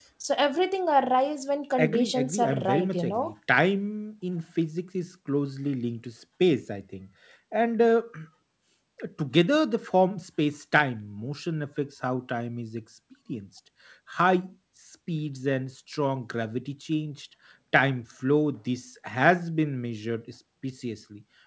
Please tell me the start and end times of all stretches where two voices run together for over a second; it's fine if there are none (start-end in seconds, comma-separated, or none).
1.8-3.2